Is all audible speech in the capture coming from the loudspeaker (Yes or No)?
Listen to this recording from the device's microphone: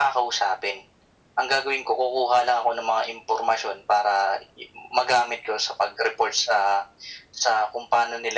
Yes